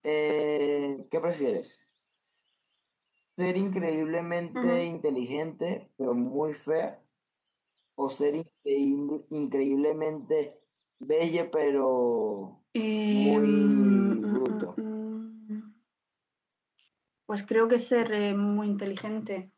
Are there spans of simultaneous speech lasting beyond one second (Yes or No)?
Yes